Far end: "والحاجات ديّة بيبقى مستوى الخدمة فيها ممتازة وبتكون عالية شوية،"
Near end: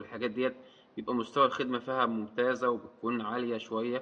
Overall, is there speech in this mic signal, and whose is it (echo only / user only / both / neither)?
echo only